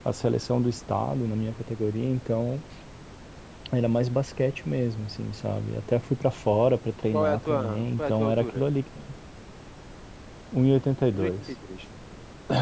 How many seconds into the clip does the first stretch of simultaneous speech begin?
7.1 s

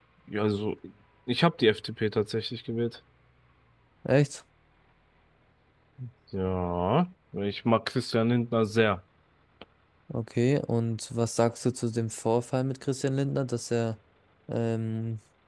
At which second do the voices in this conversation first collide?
none

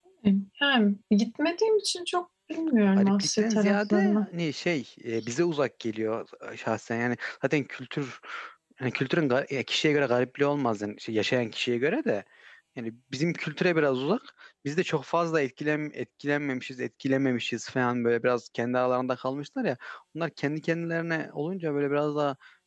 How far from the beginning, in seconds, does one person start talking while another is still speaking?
3.0 s

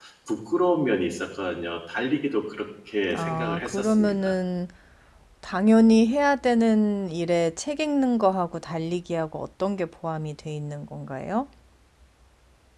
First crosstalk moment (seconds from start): 3.1 s

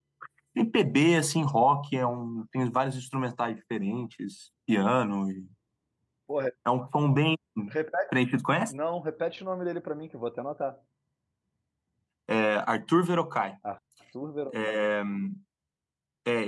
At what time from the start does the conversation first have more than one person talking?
none

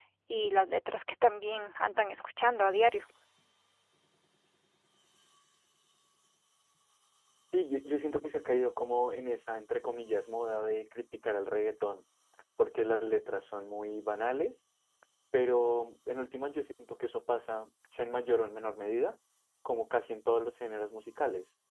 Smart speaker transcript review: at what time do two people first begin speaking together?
none

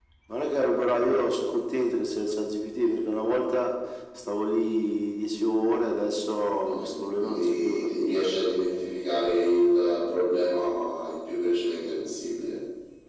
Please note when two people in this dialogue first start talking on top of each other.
6.7 s

